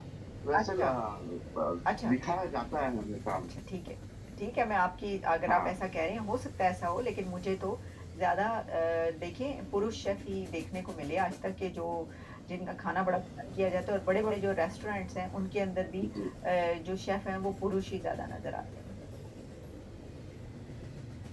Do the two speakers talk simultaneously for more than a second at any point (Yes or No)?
No